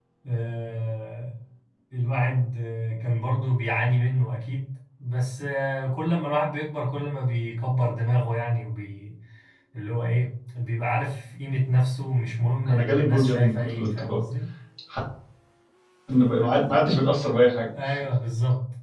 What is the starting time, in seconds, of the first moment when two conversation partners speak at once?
12.6 s

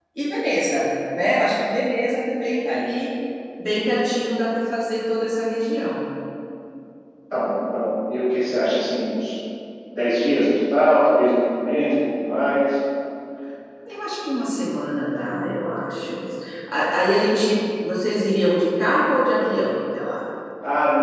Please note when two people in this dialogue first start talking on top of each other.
none

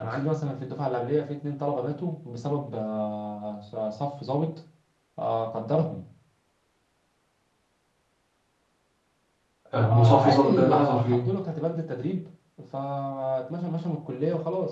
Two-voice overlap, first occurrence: 9.9 s

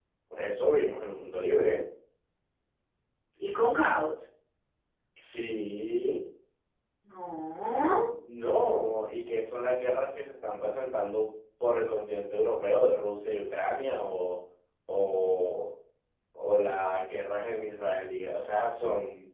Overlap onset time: none

